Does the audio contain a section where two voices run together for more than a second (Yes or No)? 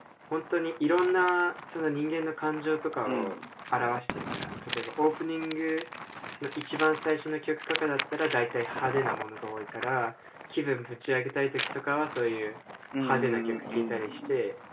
Yes